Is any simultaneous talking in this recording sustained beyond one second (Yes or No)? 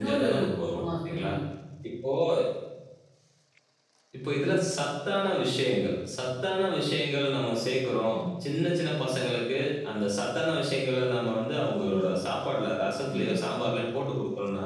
No